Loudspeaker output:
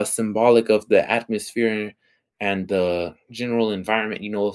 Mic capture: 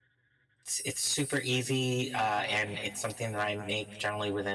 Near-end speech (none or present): present